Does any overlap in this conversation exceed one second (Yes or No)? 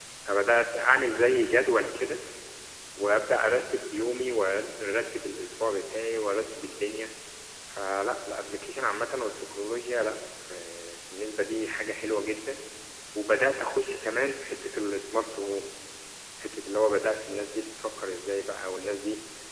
No